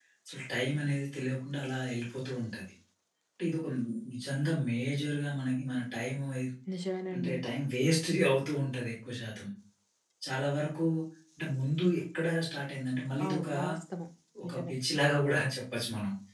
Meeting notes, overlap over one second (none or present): none